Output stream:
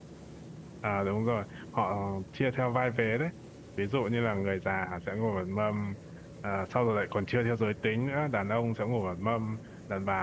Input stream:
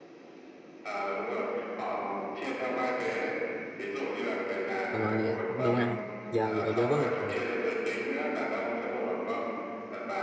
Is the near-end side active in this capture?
Yes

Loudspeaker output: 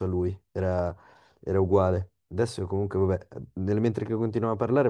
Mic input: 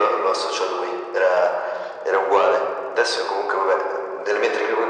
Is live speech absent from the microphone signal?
Yes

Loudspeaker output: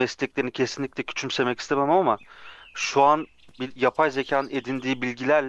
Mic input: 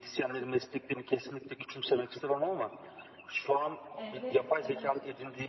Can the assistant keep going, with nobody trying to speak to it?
No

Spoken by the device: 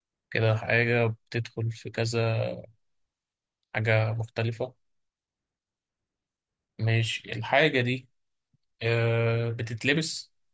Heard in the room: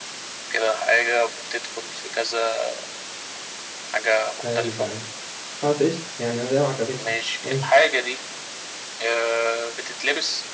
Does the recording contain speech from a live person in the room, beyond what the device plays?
Yes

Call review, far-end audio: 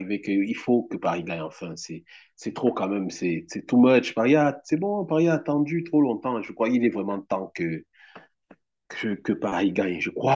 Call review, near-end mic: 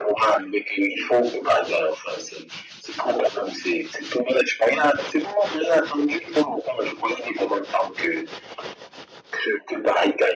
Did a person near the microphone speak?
No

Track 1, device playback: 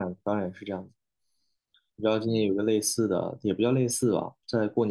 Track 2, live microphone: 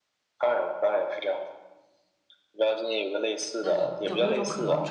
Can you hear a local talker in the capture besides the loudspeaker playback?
Yes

